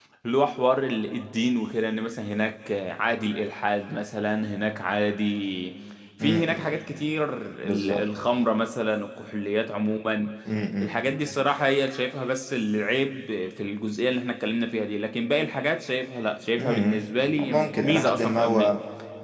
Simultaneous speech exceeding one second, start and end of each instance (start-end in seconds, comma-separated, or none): 17.4-18.8